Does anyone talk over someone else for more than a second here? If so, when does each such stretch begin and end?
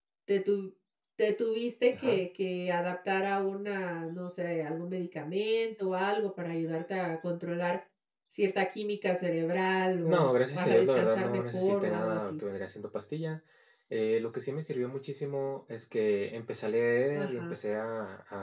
10.0-12.3

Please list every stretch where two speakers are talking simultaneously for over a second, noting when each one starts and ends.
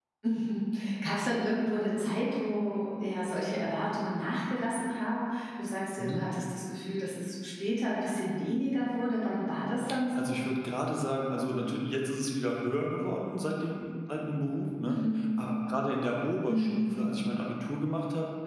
none

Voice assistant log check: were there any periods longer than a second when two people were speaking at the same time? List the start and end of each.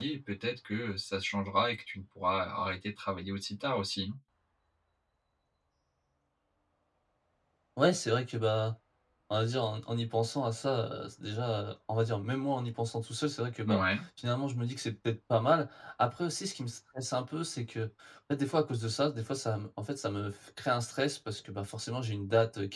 none

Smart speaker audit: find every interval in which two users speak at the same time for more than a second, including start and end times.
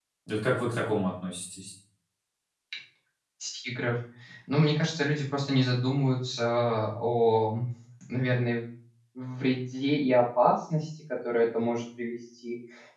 none

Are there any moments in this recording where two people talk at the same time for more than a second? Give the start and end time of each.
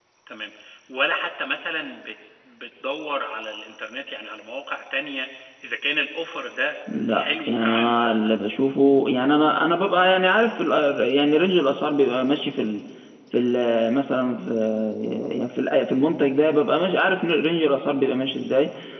7.1-8.3

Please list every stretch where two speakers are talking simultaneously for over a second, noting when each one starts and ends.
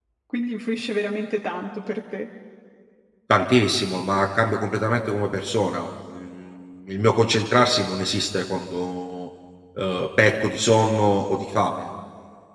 none

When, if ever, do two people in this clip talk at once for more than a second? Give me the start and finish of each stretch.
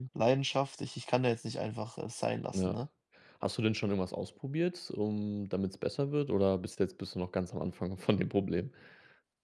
none

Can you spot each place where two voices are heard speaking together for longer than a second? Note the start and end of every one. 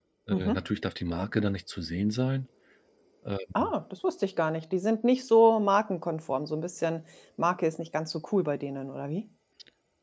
none

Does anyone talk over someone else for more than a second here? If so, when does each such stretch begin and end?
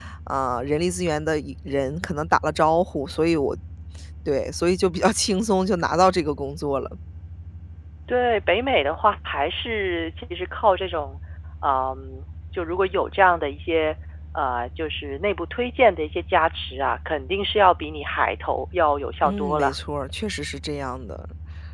none

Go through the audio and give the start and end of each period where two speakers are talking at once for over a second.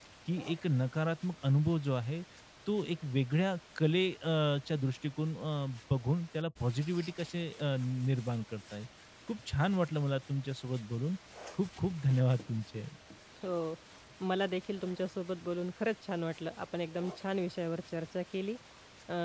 none

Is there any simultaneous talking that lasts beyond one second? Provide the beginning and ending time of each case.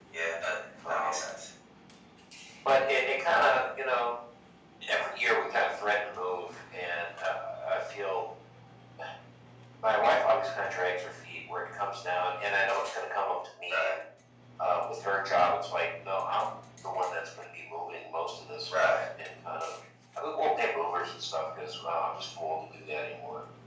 none

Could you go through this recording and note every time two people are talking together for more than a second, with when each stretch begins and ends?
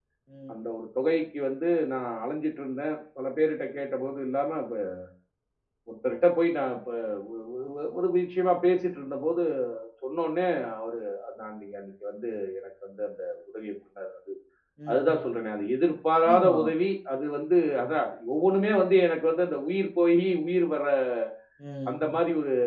none

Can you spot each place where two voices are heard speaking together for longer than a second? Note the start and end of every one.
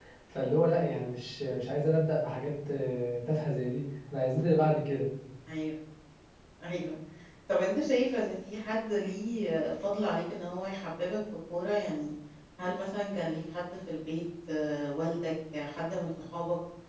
none

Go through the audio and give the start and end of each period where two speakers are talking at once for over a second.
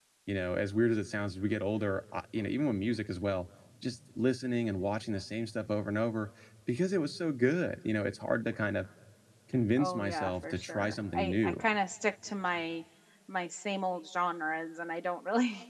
9.8-11.6

